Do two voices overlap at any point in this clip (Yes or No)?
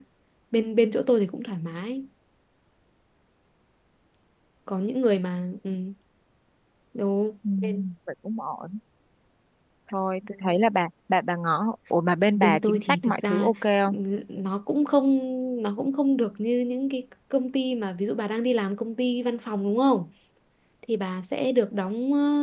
Yes